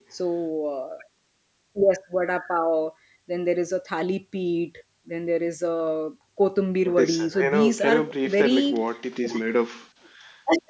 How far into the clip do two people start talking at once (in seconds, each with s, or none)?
6.8 s